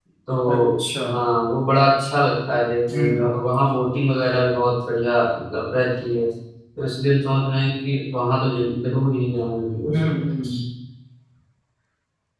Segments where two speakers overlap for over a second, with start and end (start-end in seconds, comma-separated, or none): none